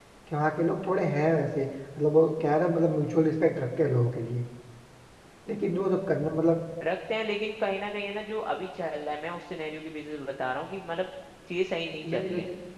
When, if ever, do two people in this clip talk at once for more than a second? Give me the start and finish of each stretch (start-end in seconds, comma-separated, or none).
none